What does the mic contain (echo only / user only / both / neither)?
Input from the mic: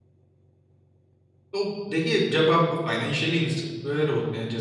user only